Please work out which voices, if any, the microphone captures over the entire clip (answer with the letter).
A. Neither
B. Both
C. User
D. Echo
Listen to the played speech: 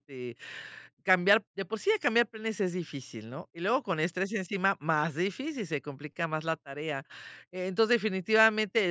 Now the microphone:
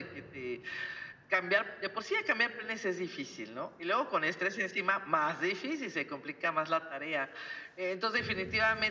D